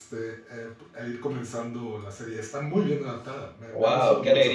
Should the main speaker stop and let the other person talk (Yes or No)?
Yes